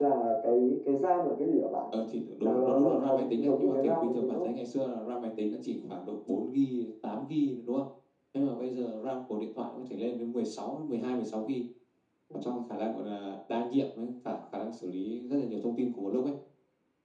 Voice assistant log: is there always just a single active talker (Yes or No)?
No